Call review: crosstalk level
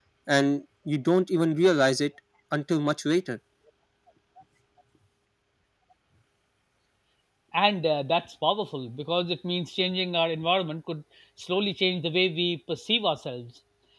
none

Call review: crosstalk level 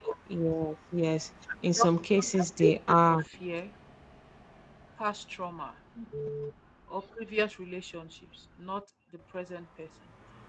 present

